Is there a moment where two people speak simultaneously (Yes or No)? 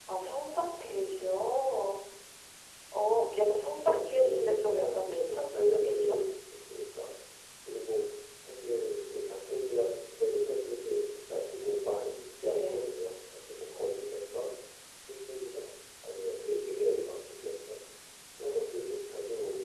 Yes